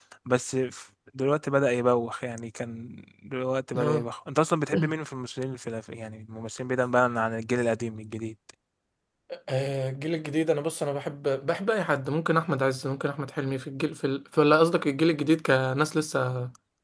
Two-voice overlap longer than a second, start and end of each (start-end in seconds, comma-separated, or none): none